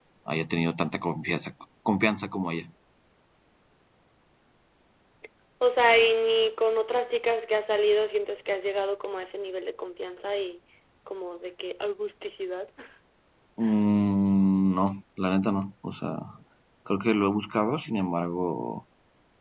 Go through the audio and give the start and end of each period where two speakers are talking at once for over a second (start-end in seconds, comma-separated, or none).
none